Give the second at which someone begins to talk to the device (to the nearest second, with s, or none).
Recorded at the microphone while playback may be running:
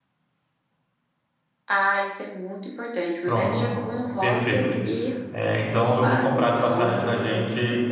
3 s